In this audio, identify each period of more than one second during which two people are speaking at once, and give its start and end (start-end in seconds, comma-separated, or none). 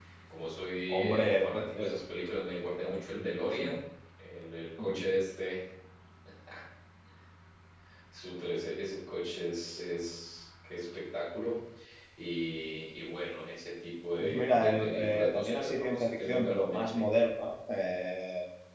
0.9-3.8, 14.2-17.0